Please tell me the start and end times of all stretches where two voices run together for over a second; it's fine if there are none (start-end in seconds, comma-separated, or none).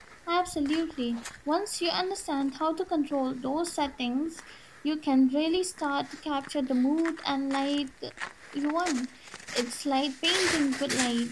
none